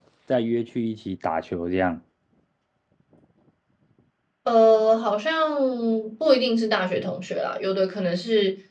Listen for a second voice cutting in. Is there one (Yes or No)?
No